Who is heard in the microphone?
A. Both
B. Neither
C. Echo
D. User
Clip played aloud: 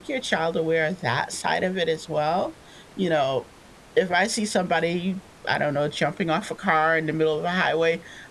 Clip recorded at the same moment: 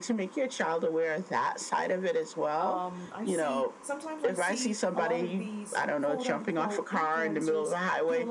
A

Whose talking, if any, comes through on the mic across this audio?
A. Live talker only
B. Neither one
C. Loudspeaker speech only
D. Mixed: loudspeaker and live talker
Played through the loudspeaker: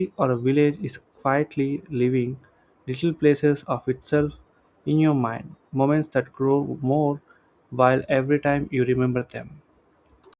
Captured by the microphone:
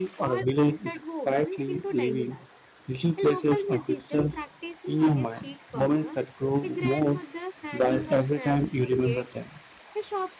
D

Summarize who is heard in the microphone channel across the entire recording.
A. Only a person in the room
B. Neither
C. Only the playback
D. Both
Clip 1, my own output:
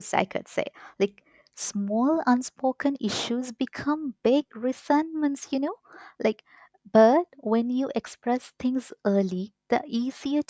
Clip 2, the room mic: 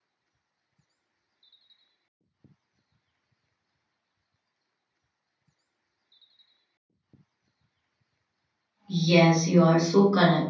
A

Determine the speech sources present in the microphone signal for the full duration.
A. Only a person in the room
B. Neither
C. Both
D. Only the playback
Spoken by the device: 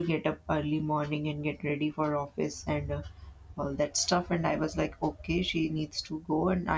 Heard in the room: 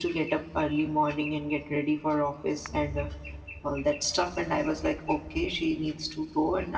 D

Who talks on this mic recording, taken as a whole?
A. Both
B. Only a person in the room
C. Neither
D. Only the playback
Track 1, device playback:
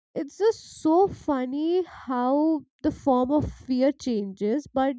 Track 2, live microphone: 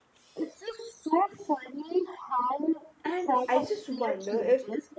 A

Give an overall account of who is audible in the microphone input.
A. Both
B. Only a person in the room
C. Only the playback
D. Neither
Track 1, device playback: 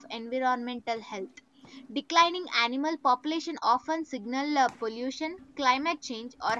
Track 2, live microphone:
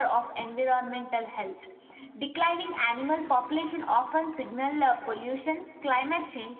C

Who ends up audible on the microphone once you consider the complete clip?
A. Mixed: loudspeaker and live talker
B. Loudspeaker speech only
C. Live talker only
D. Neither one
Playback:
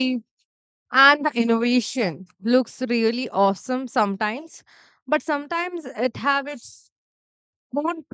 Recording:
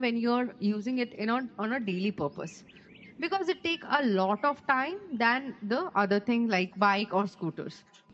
C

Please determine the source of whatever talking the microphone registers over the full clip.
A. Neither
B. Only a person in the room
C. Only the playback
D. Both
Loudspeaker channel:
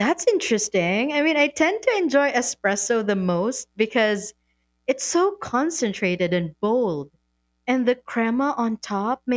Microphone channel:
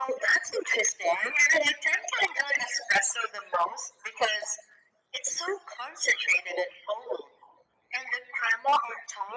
C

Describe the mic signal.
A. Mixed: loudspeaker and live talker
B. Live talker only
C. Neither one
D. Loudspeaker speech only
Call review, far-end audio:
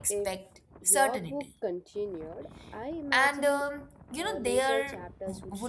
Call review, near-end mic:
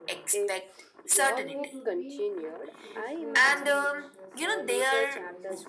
A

